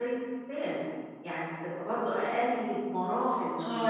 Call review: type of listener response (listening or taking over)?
taking over